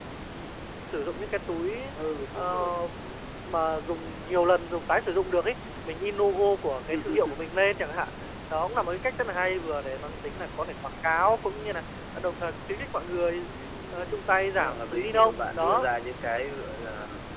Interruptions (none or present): present